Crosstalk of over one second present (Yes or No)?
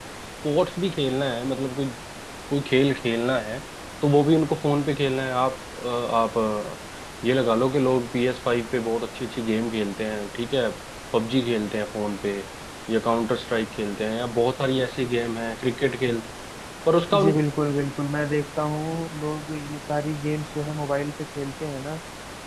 No